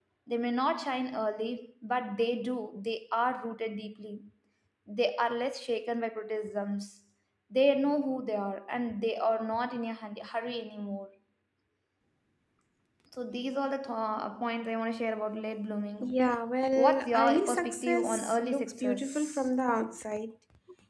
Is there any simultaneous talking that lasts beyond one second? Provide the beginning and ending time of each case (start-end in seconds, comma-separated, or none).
16.8-19.5